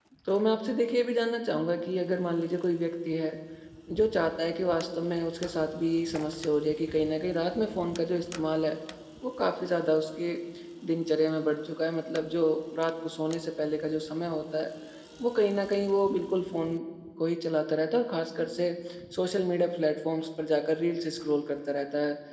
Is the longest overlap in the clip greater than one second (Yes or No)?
No